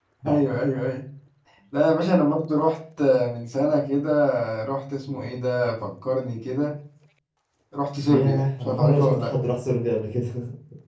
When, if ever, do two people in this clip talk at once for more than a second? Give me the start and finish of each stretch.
8.1-9.3

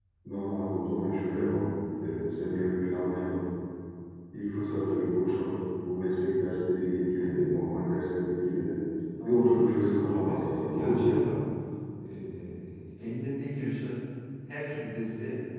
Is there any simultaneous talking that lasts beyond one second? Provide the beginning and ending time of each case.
9.2-11.2

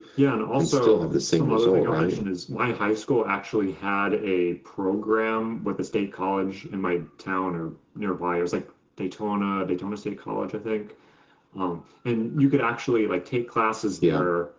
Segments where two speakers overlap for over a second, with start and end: 0.6-2.2

